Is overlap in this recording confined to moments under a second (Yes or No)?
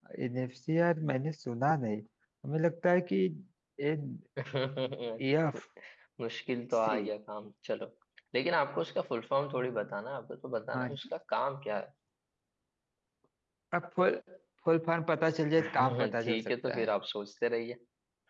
No